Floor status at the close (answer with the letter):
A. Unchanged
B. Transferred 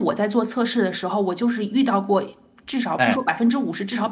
A